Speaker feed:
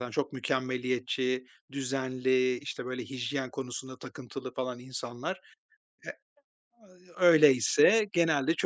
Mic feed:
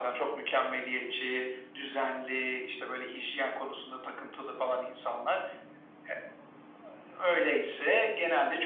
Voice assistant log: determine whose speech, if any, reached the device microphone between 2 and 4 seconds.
echo only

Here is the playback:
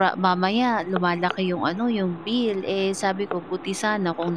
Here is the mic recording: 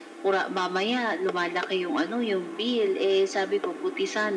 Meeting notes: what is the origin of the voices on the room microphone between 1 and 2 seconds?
echo only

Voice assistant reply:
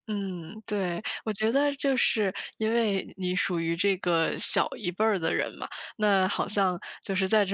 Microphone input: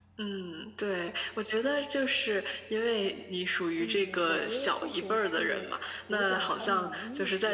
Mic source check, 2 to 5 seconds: both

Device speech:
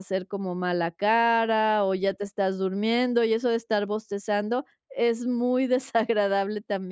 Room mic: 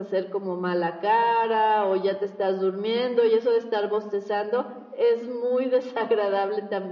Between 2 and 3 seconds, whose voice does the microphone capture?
echo only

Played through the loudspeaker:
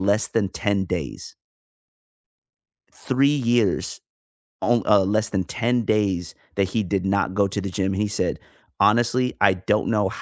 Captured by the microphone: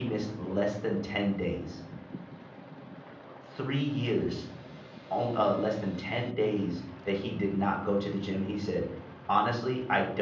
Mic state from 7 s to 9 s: echo only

